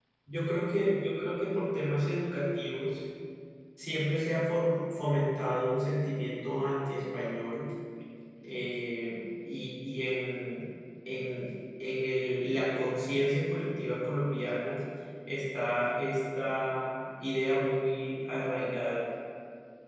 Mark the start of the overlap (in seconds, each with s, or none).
none